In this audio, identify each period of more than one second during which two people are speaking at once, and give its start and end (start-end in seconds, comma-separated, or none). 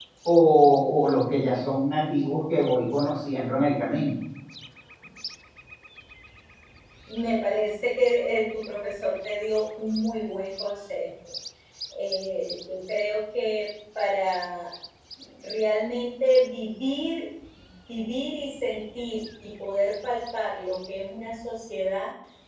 none